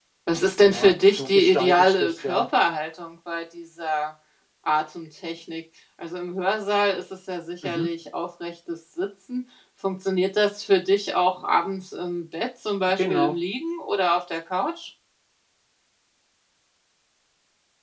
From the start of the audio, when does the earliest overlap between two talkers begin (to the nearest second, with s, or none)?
1 s